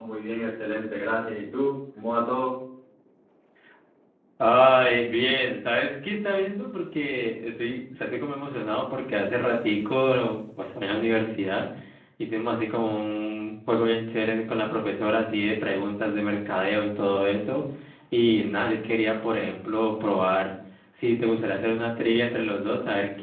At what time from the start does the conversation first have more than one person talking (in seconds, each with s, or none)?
none